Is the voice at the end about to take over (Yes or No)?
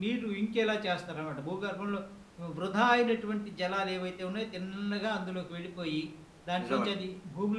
No